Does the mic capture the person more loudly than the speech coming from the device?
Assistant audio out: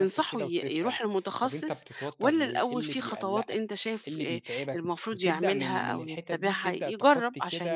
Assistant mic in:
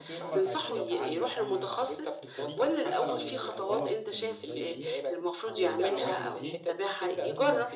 No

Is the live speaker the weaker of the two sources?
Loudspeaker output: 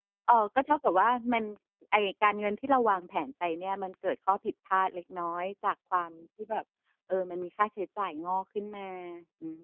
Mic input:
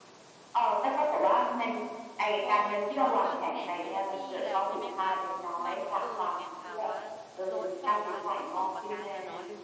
Yes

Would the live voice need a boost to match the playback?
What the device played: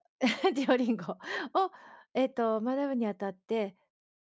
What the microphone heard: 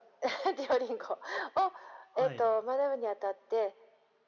Yes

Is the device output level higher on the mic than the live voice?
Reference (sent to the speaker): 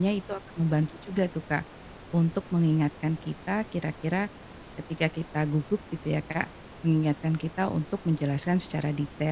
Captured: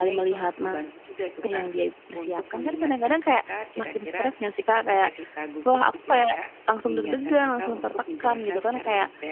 No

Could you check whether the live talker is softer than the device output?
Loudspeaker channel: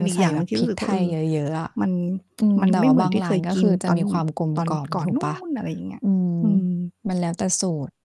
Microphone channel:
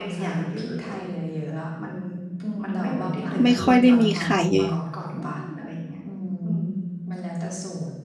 No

